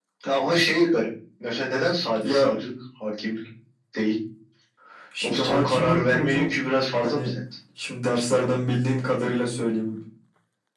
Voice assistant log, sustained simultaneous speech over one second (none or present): present